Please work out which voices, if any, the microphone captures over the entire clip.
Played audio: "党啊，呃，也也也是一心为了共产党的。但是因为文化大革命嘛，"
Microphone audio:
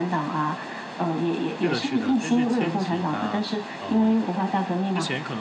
both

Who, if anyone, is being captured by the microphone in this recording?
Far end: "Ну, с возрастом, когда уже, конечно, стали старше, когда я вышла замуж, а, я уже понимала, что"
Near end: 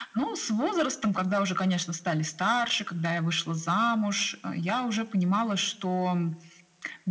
echo only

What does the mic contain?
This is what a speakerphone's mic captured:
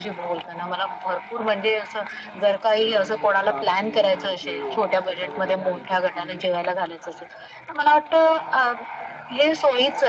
both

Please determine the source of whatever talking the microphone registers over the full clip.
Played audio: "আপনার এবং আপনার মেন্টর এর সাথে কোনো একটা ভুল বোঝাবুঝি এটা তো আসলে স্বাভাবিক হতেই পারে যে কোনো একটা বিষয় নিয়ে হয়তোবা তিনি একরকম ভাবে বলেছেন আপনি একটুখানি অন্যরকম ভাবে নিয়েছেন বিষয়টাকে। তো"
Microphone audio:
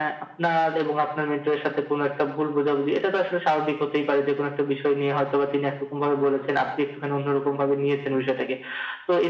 echo only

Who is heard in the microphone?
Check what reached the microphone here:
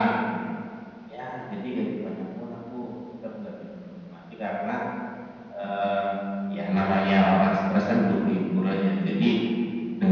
echo only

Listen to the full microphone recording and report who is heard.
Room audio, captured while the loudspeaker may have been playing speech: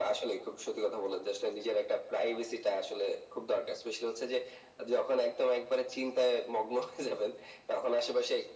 echo only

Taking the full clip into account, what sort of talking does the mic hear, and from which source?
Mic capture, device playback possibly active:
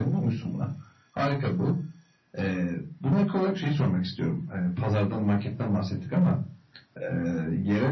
echo only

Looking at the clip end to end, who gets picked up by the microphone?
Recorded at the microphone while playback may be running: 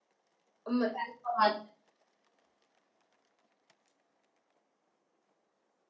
user only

